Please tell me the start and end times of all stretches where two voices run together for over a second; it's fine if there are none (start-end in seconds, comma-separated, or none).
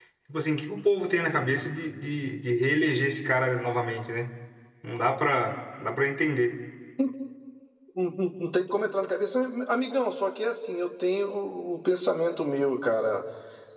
none